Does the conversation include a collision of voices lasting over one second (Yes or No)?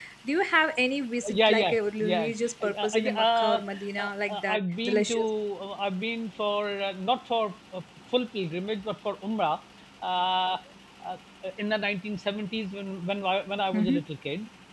Yes